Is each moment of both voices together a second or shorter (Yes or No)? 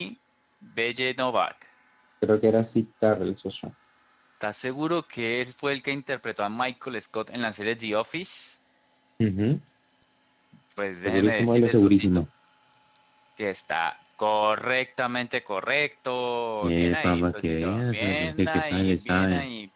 No